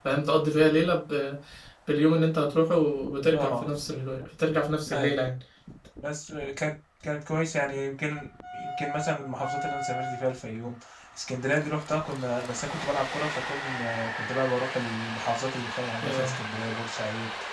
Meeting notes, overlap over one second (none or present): none